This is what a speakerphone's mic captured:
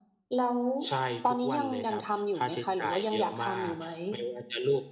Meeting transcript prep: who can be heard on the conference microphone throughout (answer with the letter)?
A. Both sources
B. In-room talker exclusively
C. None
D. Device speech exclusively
D